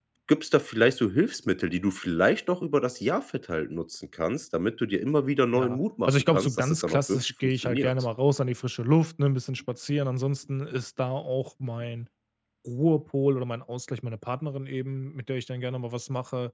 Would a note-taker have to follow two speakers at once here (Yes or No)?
Yes